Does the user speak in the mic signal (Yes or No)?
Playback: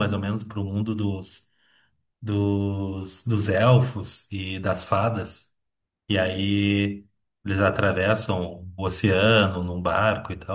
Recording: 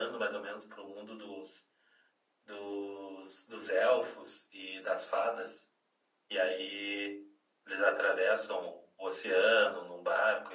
No